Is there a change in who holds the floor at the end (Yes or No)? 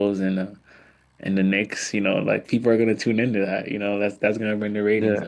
Yes